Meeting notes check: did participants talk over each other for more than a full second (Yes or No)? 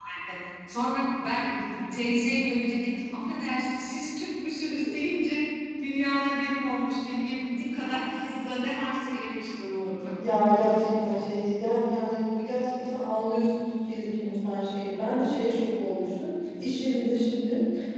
No